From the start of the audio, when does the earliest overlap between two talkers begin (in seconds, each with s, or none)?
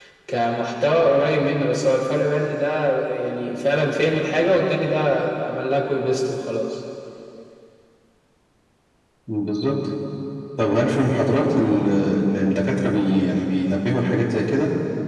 none